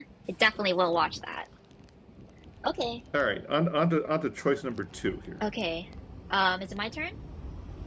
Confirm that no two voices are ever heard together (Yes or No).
Yes